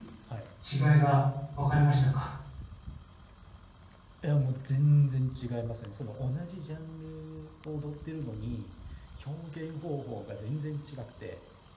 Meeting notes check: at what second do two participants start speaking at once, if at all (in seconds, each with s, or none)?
none